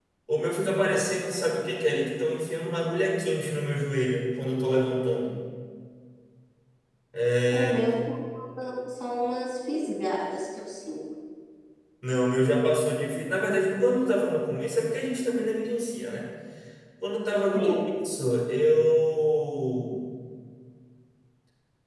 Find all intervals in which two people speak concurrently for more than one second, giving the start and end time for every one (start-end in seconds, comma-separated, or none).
none